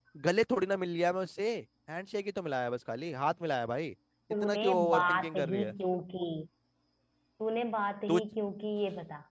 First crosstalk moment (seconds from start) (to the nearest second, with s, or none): 4 s